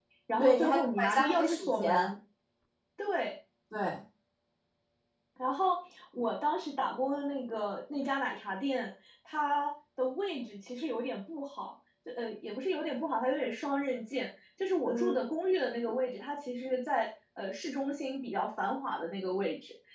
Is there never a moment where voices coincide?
No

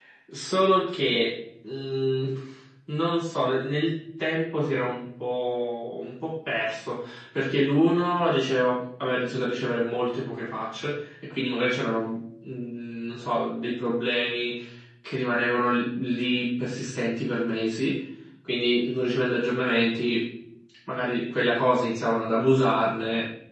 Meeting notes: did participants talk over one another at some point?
No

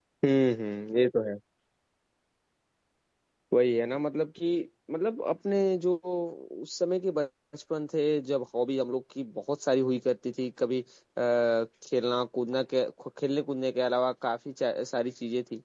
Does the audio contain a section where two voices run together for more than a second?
No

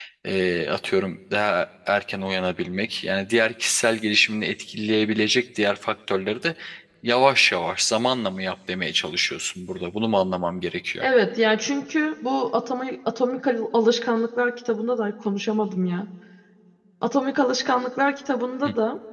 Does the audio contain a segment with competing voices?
No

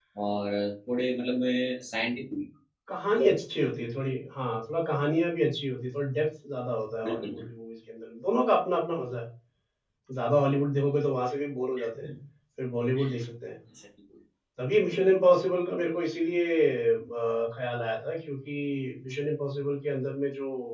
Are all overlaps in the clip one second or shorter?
Yes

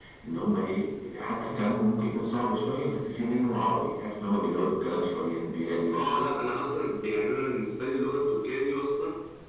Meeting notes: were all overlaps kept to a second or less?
Yes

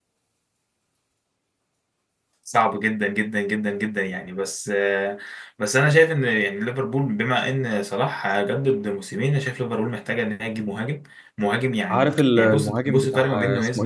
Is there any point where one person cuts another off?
Yes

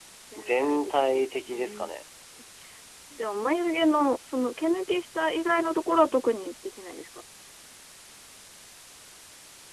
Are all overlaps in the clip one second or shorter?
No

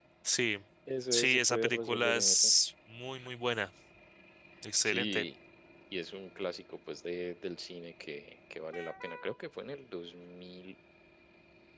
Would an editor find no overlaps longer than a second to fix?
No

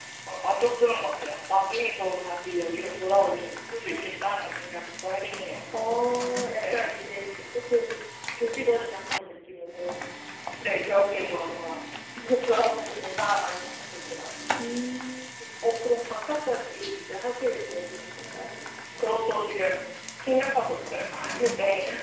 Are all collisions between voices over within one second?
Yes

